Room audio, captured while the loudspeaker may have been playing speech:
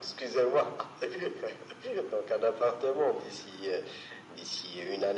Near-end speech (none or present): none